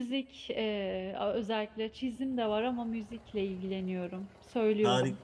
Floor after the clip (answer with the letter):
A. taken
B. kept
A